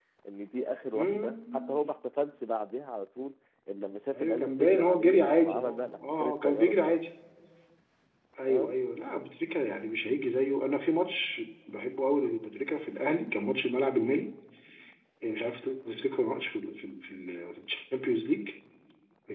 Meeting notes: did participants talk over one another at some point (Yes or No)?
Yes